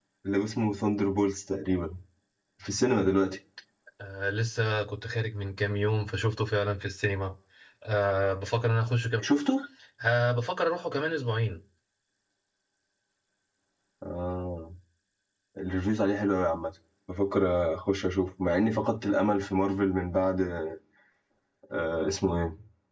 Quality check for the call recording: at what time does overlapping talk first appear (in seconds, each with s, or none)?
none